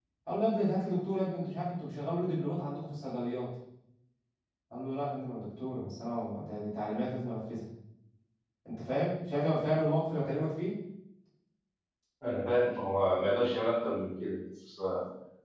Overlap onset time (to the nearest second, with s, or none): none